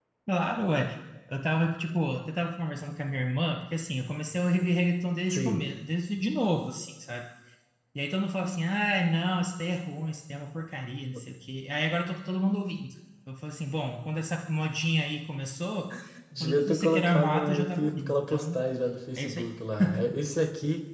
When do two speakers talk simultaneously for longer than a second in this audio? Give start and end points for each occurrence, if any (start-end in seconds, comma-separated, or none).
16.4-18.6